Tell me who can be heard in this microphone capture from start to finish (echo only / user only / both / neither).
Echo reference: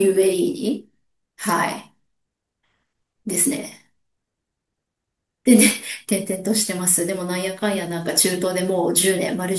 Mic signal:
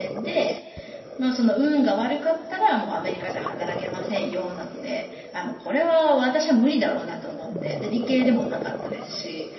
user only